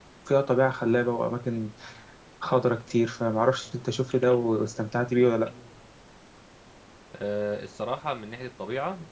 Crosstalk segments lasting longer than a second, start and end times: none

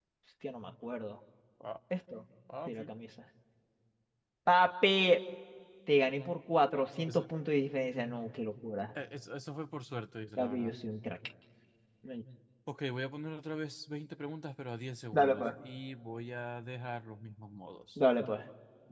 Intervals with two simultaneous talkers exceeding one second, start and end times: none

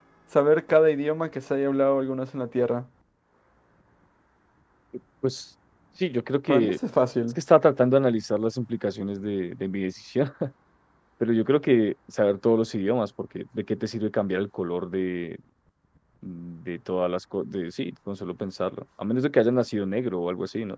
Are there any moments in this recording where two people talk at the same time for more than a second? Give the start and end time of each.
none

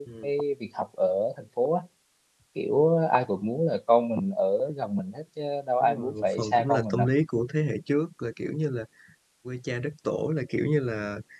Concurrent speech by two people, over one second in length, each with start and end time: 5.8-7.1

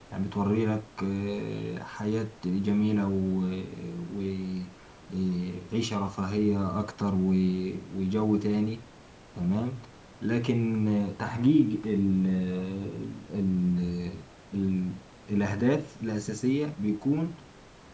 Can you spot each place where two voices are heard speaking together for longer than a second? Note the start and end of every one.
none

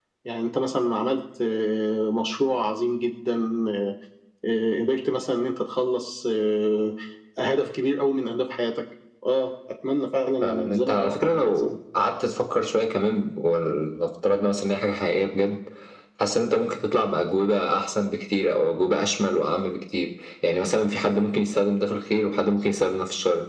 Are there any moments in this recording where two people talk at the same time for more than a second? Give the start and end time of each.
10.4-11.7

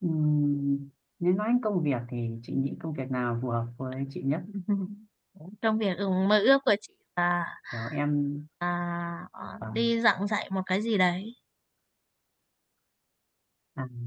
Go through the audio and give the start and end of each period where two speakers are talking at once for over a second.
none

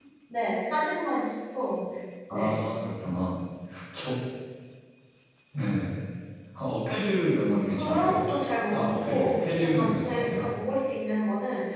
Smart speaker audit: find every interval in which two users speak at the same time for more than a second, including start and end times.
8.7-10.4

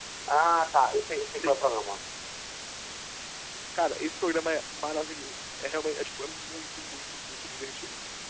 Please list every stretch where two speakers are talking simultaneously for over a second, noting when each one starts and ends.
none

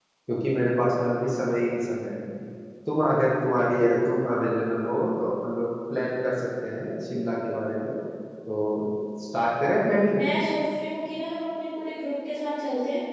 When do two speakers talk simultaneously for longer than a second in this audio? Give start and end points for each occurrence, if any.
none

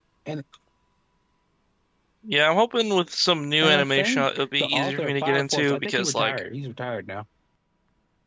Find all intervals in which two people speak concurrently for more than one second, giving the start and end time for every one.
3.6-6.4

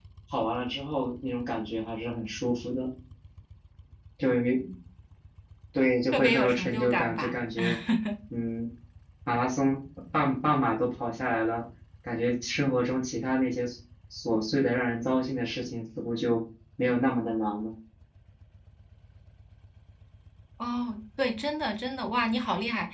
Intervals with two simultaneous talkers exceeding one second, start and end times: 6.1-7.3

